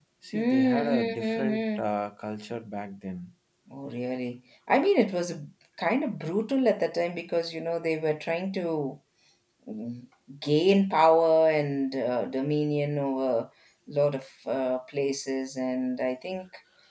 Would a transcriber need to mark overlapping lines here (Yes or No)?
Yes